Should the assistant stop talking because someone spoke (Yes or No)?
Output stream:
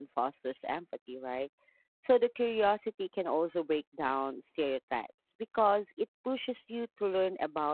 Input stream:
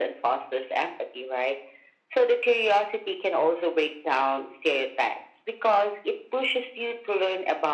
No